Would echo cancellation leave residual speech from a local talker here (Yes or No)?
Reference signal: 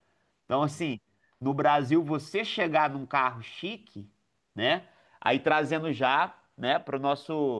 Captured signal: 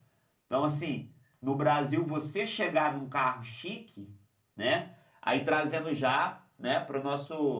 No